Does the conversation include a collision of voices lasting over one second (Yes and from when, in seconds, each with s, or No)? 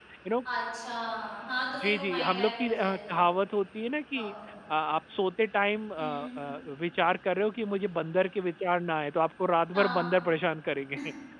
Yes, from 1.8 s